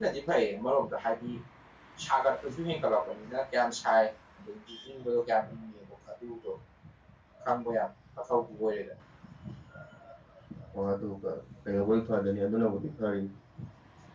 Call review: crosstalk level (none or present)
none